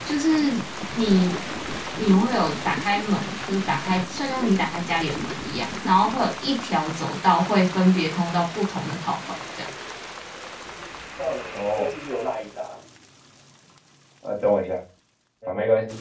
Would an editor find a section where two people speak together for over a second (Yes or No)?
No